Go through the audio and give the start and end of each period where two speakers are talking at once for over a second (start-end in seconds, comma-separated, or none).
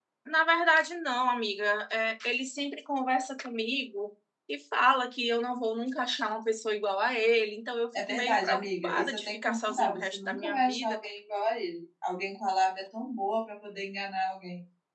8.1-11.0